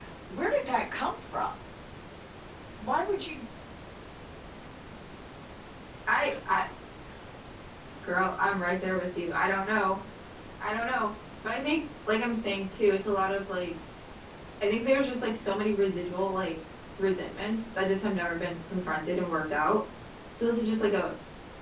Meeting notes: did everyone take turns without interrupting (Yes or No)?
Yes